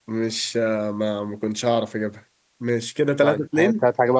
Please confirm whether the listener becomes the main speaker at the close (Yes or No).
Yes